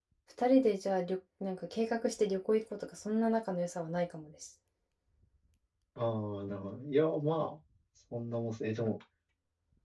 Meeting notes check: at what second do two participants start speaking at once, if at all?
none

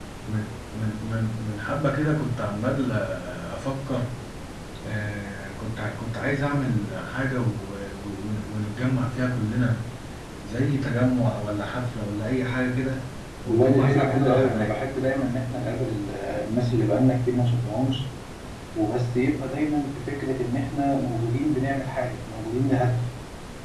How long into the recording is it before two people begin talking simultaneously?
13 s

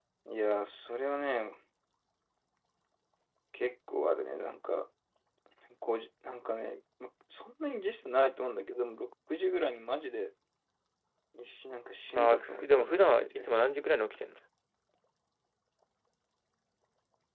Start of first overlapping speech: 12 s

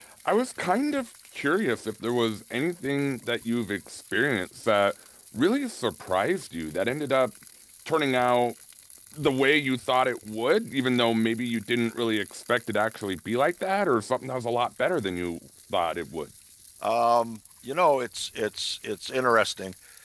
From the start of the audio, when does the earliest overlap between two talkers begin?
none

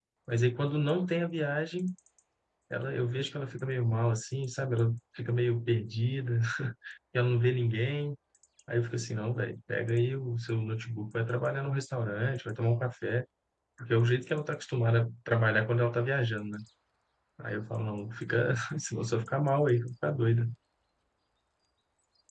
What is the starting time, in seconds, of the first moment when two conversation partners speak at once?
none

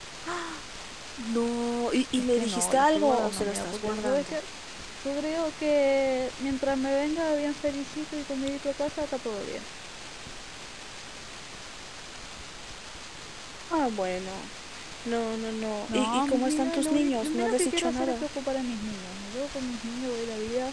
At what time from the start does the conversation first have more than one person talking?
2 s

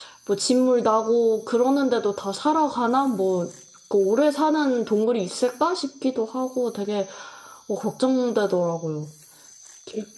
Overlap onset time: none

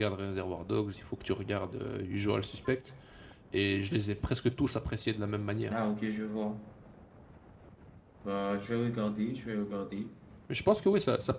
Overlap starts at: none

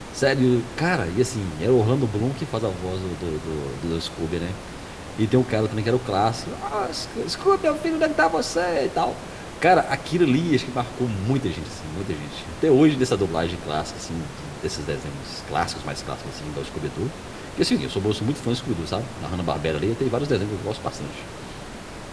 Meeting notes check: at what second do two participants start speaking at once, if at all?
none

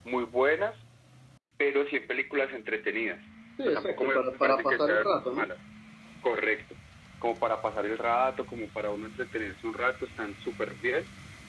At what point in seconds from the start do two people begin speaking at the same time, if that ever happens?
4 s

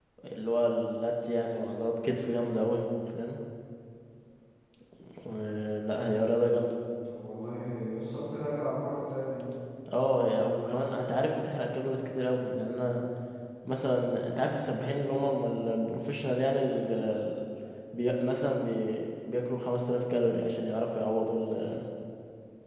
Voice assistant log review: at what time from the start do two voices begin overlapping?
none

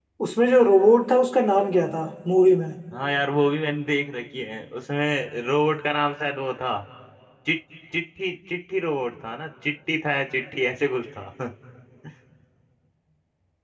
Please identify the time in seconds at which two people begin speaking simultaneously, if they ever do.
none

